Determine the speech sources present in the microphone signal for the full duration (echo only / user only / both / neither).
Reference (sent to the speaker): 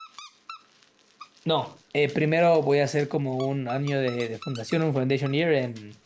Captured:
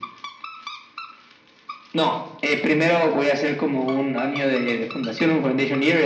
echo only